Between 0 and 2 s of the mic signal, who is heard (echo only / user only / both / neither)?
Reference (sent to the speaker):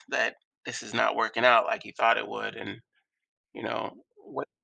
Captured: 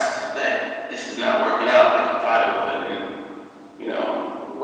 echo only